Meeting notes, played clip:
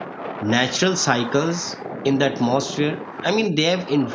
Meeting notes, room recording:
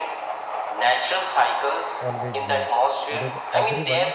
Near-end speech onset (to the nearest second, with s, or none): 2 s